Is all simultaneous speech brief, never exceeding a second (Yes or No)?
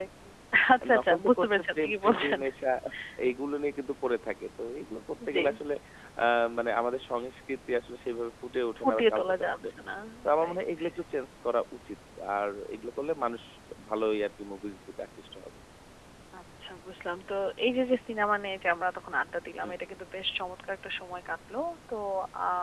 No